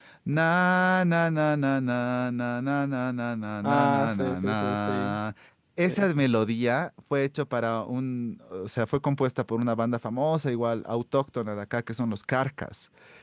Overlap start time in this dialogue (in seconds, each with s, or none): 3.6 s